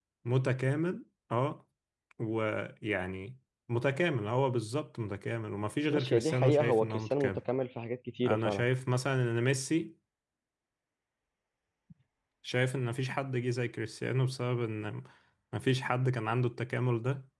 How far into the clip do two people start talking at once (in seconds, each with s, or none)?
5.9 s